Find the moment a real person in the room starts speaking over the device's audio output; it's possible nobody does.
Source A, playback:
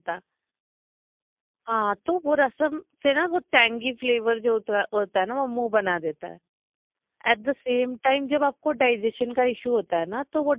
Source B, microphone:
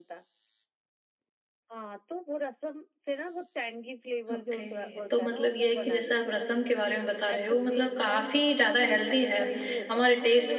4.3 s

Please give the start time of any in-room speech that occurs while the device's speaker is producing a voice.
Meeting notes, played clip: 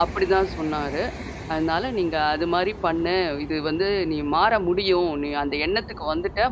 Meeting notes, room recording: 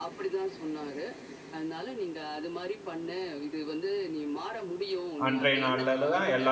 5.2 s

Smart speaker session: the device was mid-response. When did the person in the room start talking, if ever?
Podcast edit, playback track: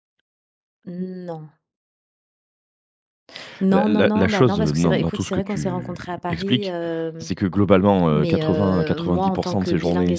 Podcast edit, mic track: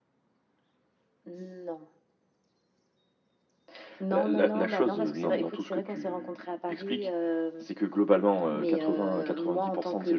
none

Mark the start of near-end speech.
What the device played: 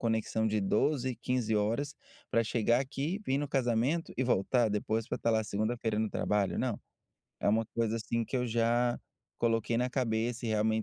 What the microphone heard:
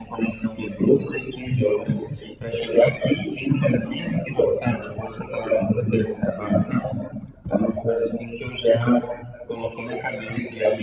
none

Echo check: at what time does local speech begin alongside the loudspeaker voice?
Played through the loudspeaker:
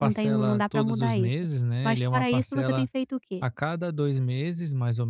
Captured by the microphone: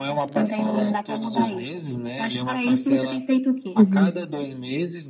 3.8 s

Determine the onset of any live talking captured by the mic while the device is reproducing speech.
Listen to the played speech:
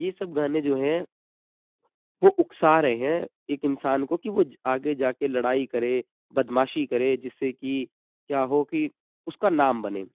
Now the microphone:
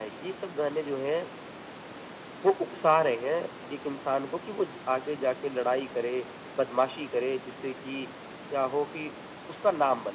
none

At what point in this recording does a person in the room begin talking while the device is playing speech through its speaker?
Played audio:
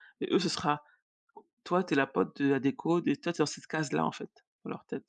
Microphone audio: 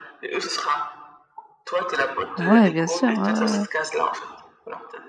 2.3 s

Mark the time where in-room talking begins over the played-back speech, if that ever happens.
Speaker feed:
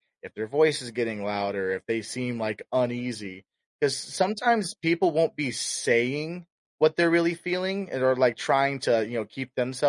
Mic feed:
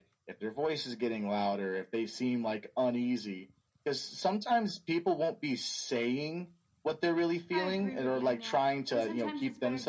7.5 s

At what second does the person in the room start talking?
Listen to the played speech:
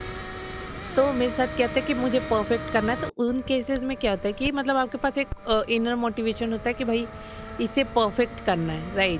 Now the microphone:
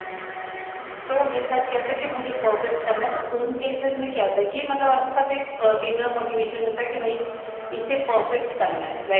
none

